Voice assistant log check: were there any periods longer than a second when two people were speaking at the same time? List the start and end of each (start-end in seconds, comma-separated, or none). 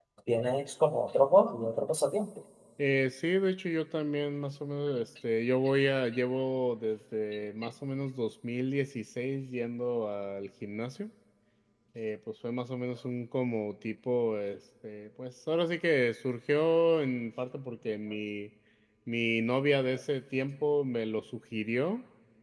none